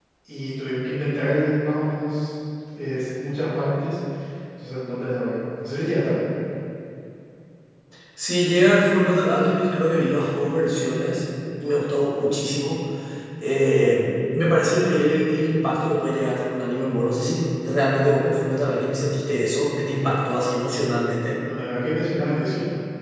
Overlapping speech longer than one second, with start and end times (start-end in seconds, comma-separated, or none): none